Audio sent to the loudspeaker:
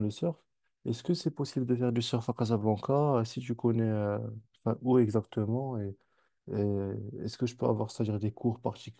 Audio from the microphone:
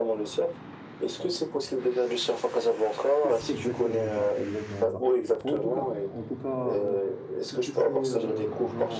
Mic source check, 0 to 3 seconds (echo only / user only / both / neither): echo only